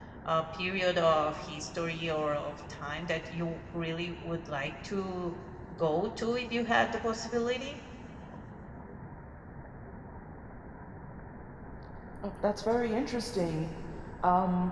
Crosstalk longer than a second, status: none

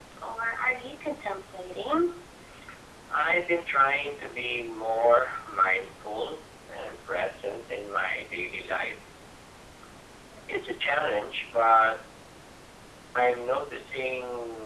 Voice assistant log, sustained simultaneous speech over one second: none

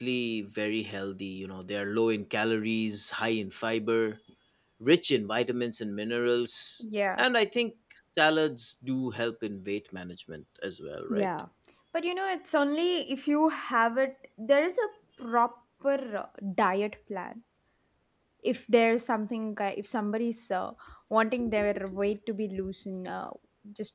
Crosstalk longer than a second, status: none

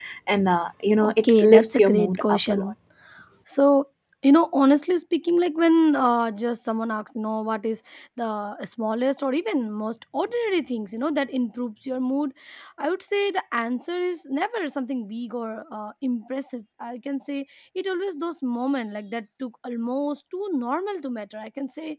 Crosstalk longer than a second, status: present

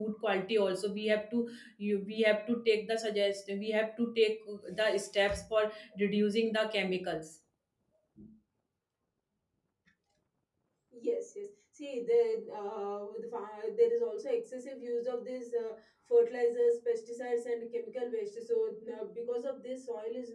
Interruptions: none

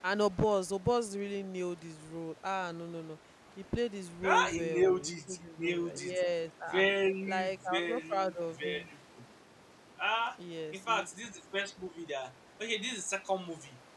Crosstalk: present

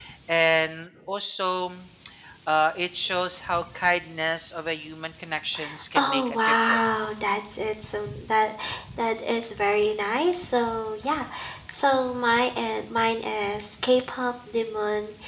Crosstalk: present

